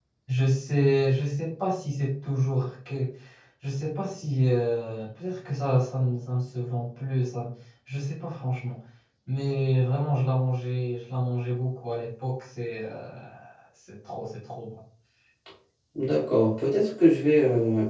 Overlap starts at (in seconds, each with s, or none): none